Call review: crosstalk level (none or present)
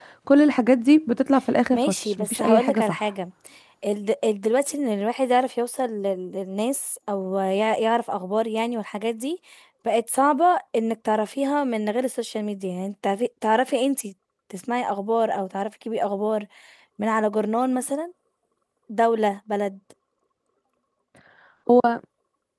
present